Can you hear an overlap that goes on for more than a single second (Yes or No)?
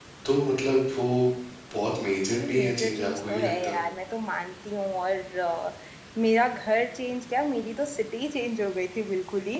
Yes